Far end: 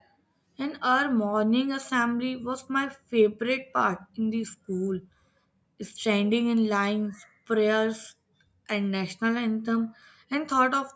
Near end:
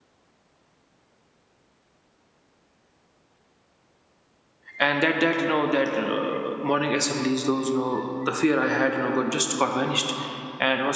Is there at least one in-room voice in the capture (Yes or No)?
Yes